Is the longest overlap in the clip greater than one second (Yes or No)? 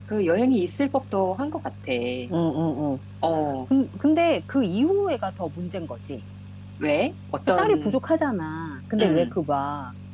No